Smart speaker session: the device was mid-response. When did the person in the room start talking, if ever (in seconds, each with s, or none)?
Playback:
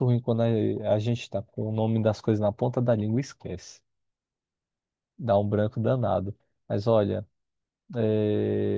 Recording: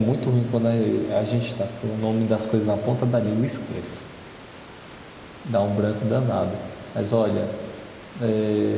none